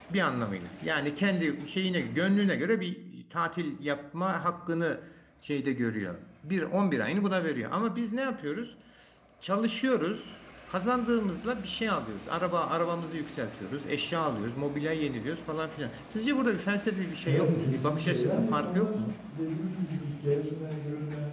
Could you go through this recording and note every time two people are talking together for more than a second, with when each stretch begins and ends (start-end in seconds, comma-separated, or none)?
17.2-19.0